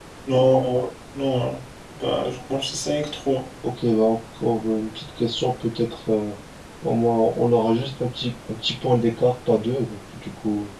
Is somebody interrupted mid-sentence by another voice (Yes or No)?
No